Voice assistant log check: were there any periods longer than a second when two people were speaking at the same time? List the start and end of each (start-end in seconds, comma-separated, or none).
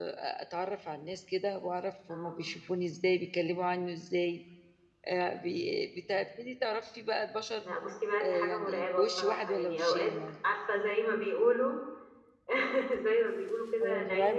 8.2-10.1